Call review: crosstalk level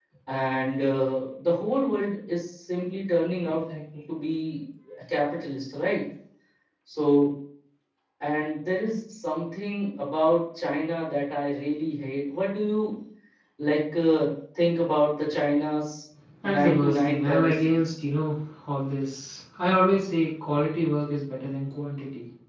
present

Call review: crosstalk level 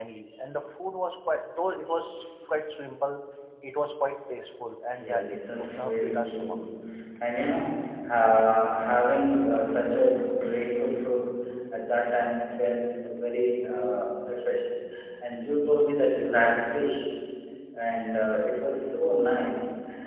present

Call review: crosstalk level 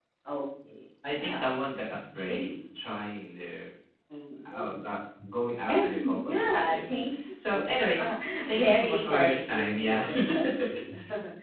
present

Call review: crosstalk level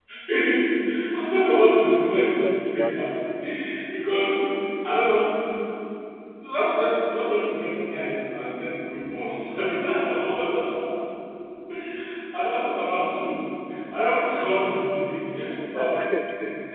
present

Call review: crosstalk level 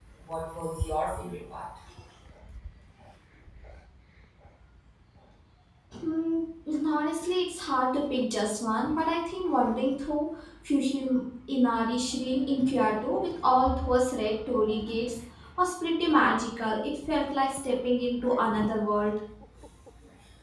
none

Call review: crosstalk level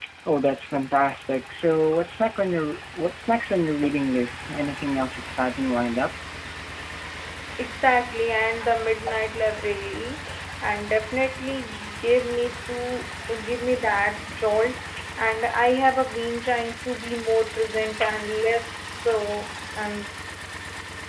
none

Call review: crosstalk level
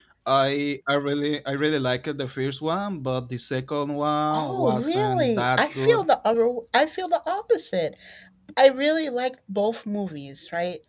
present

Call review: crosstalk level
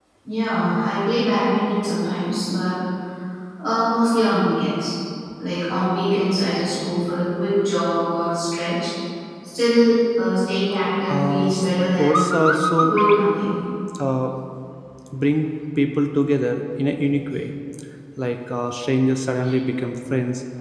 present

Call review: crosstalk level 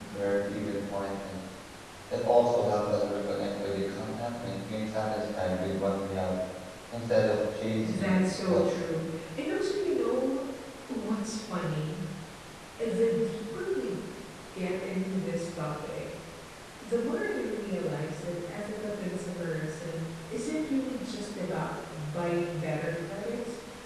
present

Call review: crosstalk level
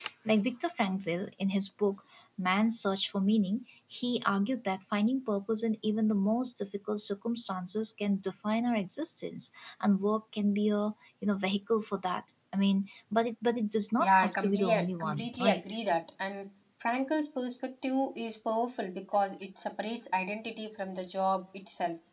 present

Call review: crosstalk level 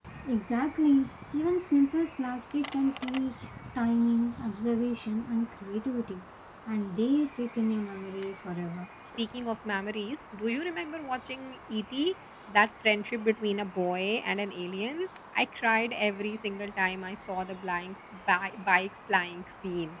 none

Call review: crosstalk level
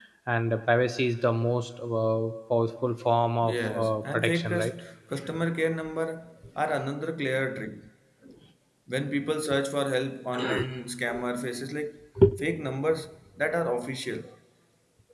present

